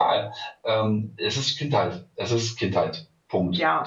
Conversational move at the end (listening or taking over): taking over